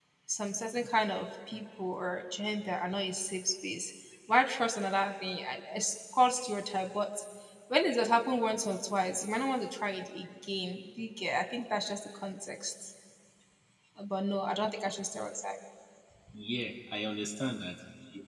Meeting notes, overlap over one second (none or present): none